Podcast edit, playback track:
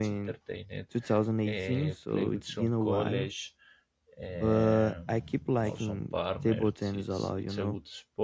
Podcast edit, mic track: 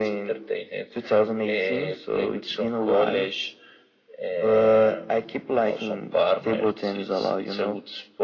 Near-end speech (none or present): none